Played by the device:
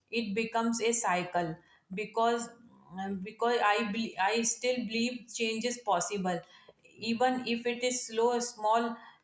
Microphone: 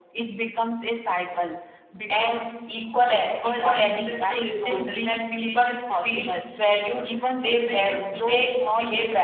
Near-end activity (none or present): present